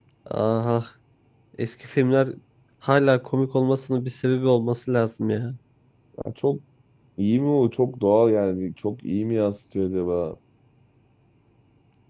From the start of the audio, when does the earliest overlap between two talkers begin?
none

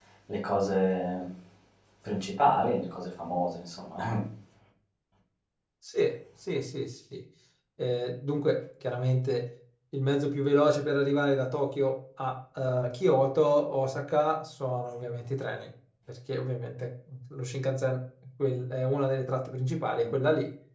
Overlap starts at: none

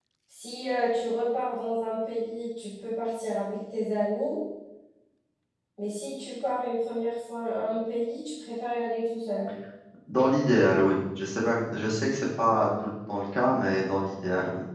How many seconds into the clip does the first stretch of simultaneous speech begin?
none

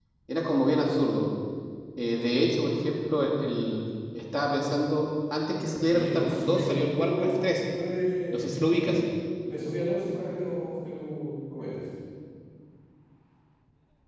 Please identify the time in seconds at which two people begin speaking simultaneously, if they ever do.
5.9 s

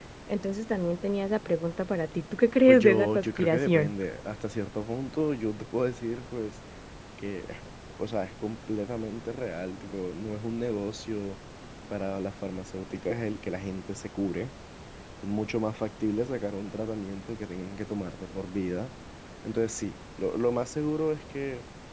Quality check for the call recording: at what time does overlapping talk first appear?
2.7 s

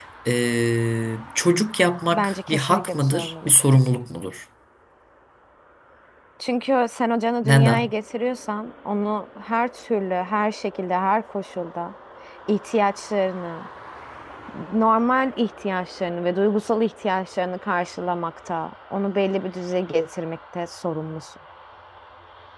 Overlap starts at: 2.1 s

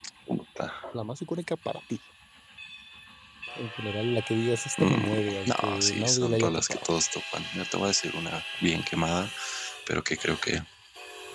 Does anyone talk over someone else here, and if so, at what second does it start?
4.8 s

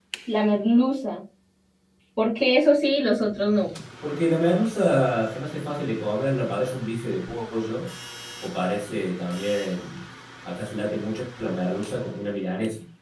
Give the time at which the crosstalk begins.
none

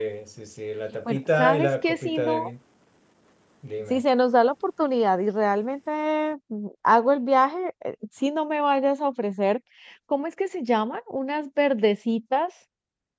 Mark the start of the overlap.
1.1 s

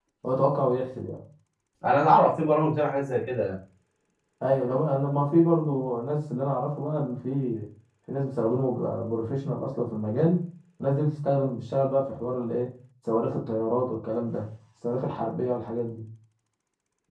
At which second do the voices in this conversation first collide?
none

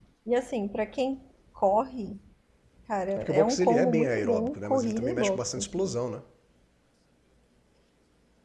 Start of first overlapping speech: 3.2 s

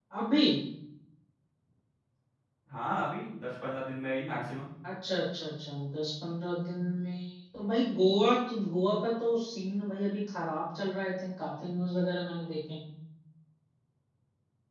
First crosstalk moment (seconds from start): none

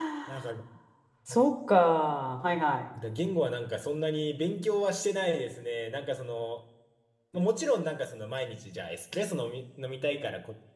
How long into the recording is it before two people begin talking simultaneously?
none

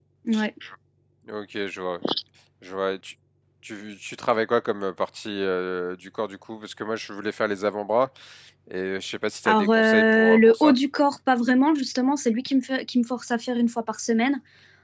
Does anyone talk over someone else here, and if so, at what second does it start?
9.4 s

